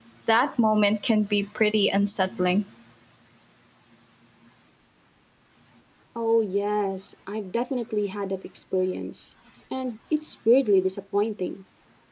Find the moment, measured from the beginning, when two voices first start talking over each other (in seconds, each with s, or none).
none